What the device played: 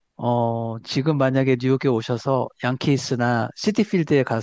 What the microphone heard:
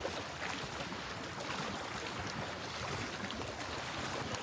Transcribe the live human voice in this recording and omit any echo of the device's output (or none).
none